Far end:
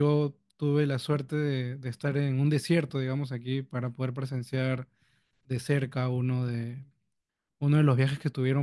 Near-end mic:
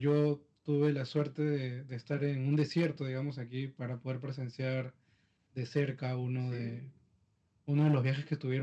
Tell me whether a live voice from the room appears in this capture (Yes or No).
Yes